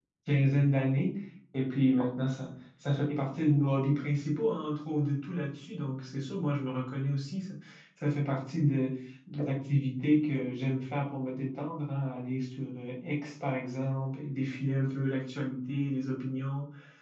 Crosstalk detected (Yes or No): No